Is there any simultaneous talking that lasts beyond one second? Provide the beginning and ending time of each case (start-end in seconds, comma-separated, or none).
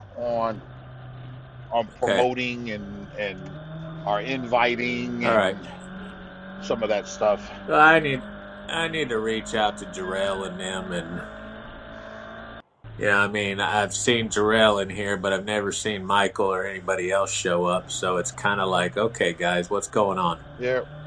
none